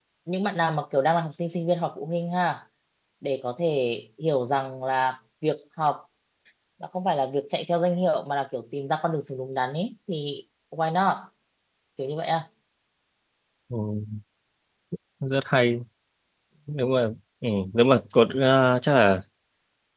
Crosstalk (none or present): none